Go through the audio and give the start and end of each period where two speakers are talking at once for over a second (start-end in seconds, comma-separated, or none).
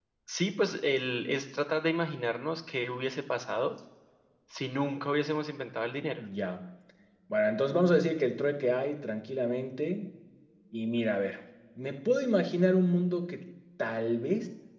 none